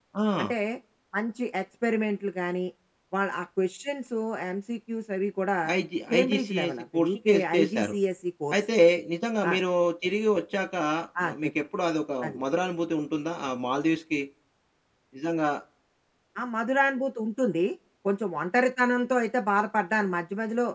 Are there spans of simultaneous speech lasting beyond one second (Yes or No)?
Yes